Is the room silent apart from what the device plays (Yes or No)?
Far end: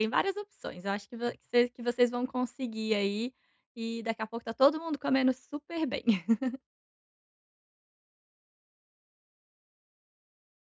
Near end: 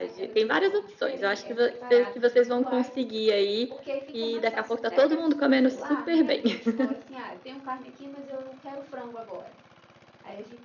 No